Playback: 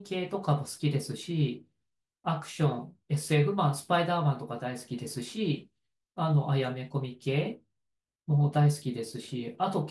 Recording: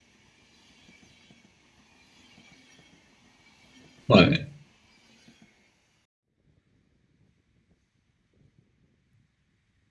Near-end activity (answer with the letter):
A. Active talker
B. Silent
A